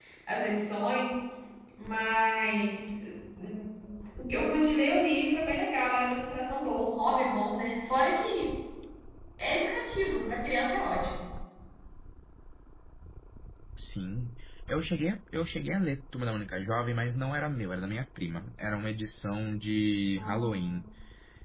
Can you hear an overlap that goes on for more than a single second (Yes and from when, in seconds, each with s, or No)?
No